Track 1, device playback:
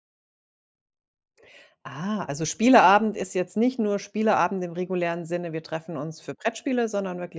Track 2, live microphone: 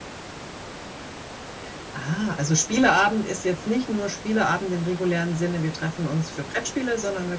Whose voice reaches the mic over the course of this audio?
echo only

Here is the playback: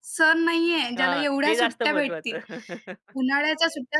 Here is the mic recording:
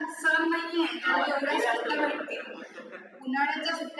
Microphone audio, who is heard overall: echo only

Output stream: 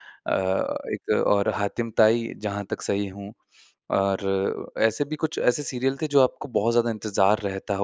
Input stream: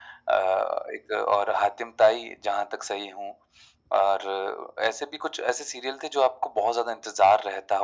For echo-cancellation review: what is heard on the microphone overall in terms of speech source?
echo only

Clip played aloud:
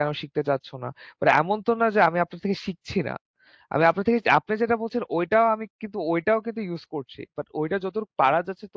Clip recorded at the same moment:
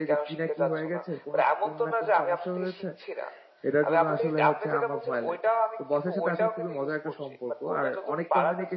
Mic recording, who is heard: both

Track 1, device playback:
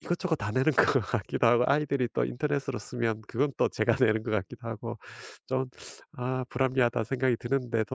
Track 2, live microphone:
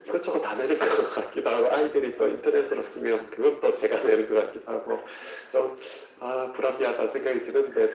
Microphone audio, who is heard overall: echo only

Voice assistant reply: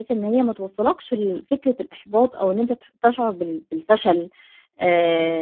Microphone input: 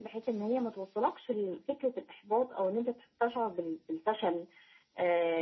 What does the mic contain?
echo only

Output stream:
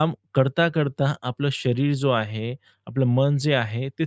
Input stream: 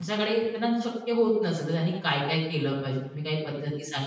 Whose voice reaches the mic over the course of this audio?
user only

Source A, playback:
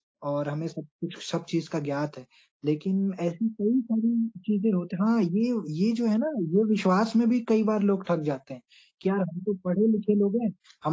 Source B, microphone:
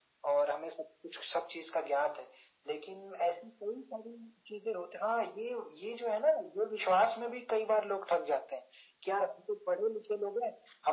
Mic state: echo only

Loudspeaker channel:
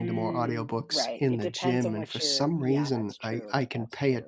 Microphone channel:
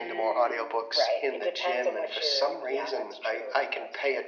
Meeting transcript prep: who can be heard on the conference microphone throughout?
echo only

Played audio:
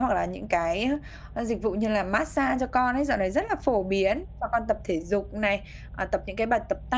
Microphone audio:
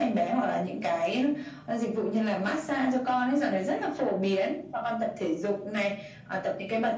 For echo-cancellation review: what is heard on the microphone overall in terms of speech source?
echo only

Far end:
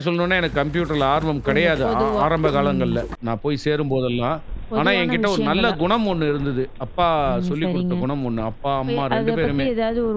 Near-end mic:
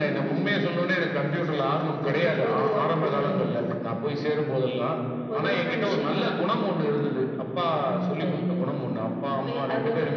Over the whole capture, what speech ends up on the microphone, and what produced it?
echo only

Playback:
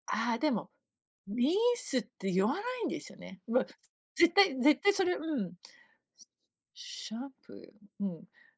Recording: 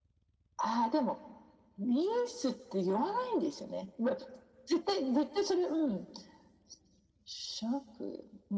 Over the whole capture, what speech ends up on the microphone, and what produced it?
echo only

